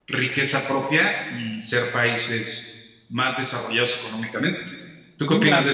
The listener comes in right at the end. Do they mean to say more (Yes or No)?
Yes